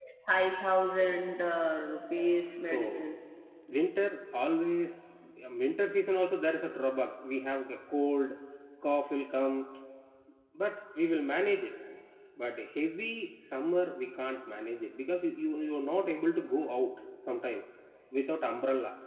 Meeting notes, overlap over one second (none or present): none